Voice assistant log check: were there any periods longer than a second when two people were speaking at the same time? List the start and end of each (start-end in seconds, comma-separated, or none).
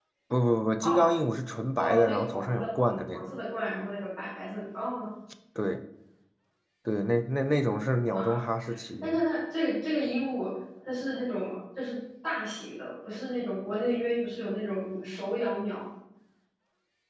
1.8-3.4